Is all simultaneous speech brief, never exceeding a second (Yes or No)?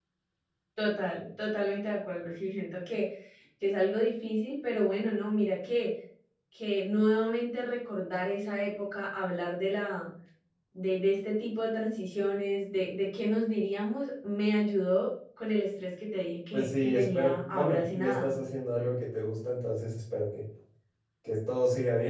No